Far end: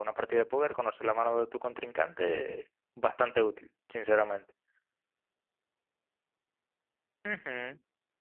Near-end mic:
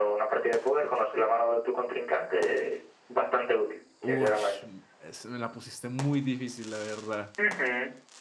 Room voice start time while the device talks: 4.0 s

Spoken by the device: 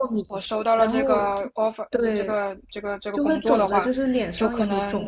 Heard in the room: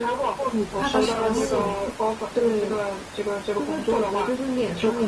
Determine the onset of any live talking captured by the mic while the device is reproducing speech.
0.7 s

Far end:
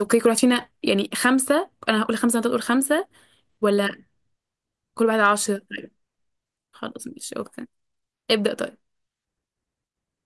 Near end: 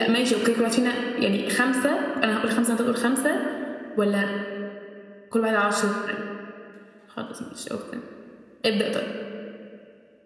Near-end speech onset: none

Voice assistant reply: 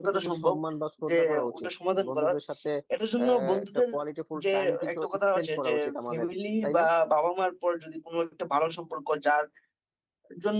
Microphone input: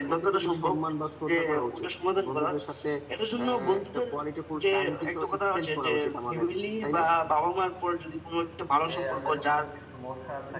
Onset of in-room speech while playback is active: 8.9 s

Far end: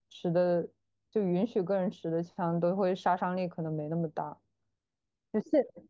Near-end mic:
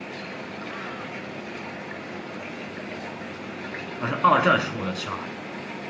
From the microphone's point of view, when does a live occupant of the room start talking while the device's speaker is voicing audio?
4.0 s

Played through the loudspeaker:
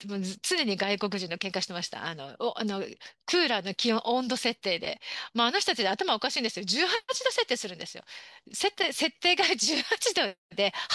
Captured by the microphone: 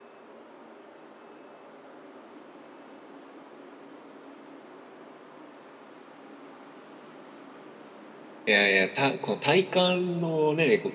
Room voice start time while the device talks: 8.4 s

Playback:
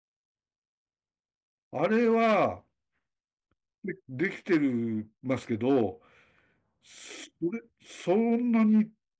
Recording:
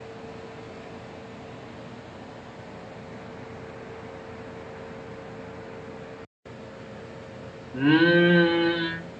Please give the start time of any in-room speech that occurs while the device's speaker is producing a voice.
7.7 s

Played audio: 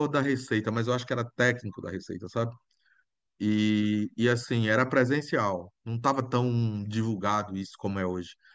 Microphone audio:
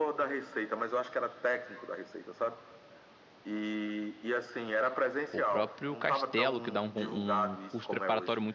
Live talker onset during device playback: 5.3 s

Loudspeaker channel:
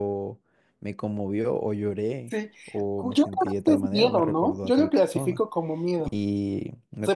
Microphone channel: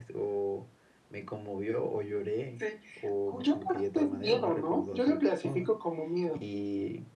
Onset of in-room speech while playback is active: none

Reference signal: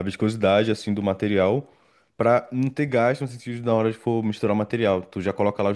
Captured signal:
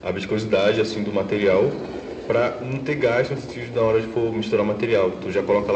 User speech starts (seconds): none

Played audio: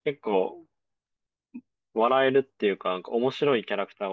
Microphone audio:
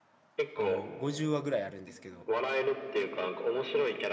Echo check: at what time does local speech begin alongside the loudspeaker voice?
0.5 s

